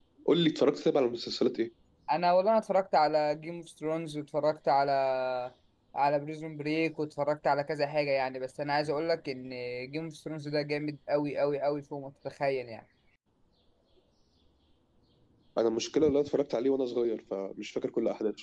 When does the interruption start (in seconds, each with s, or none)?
none